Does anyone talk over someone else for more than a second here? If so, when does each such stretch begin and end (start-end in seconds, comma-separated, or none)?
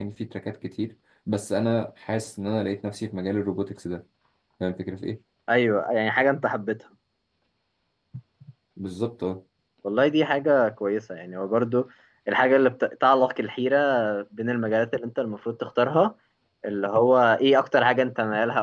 none